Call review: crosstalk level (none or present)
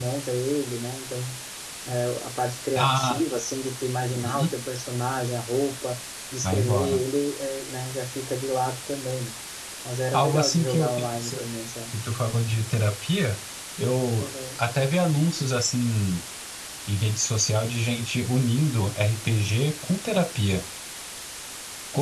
present